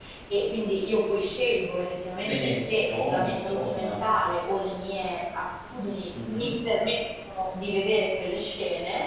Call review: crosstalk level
present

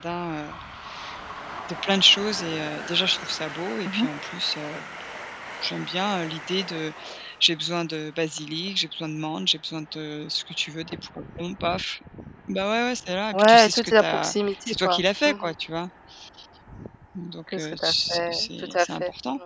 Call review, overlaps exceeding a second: present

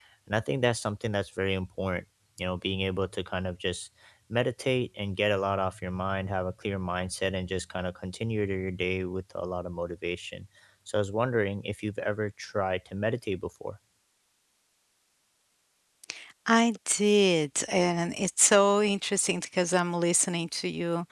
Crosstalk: none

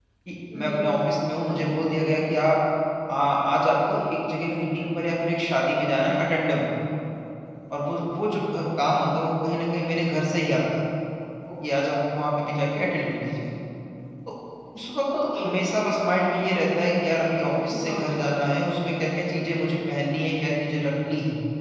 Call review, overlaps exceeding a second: none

